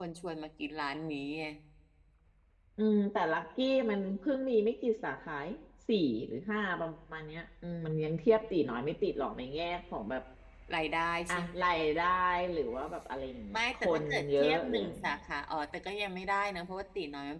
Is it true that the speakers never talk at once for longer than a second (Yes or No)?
No